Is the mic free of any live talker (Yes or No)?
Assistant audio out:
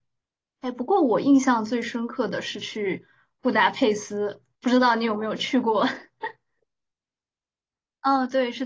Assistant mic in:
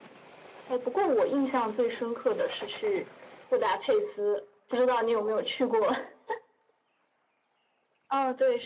Yes